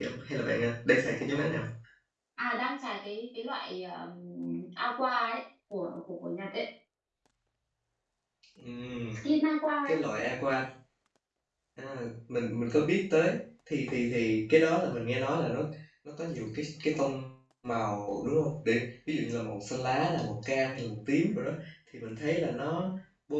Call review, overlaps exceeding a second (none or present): none